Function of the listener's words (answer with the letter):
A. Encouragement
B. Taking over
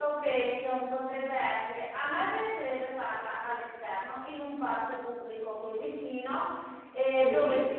A